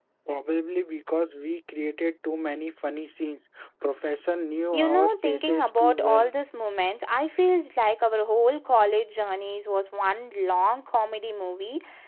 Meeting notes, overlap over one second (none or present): present